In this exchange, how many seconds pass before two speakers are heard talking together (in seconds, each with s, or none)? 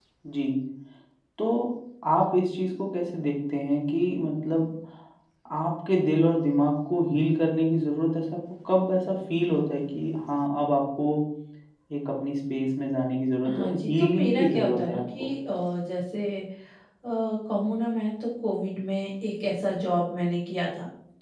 13.4 s